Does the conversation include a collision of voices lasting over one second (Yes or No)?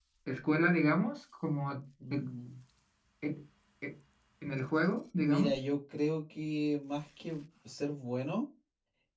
No